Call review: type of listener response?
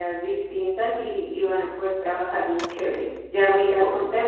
listening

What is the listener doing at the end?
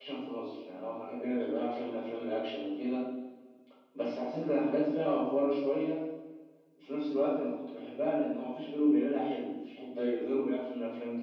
listening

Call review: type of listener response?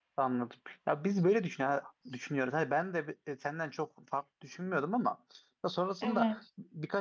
listening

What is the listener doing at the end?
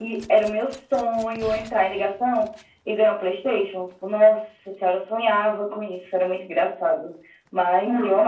listening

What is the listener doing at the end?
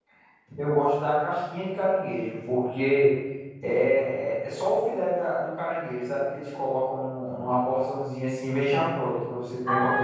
taking over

